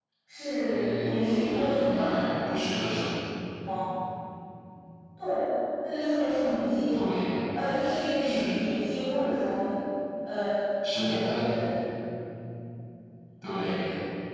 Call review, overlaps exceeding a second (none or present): present